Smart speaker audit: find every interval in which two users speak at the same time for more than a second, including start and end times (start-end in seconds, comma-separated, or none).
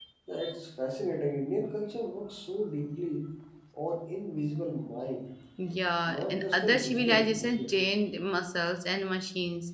6.1-7.7